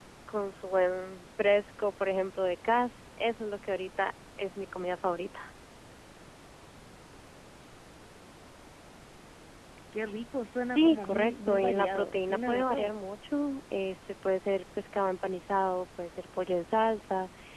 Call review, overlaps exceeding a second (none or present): present